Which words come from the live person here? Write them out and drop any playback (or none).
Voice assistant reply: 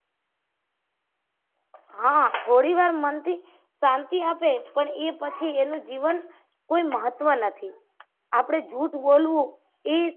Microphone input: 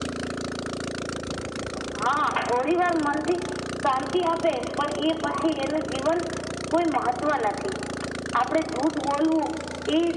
none